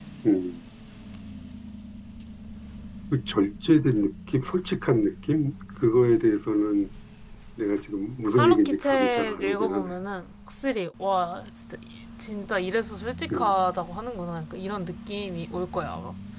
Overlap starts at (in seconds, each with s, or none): 8.4 s